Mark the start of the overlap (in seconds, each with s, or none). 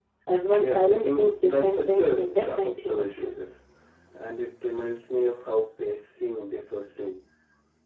0.6 s